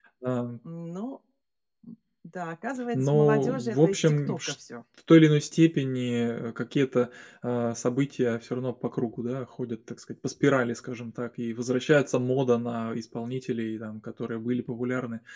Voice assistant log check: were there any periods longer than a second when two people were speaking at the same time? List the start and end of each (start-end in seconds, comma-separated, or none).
2.9-4.5